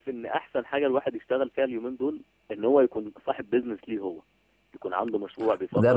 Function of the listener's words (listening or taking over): taking over